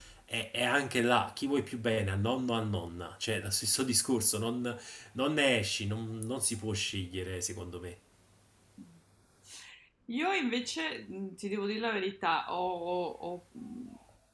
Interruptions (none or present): none